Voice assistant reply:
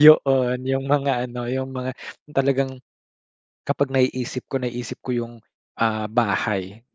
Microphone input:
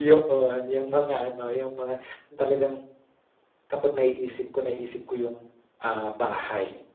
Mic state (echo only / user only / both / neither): echo only